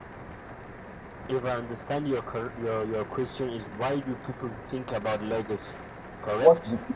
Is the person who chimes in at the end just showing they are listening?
No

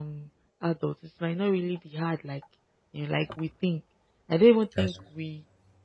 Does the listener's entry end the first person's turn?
No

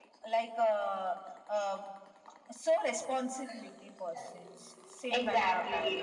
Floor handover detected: Yes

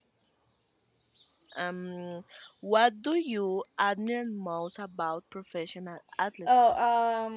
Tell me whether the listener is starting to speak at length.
Yes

